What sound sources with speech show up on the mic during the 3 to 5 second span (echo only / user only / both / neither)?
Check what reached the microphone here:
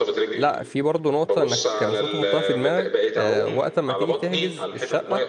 both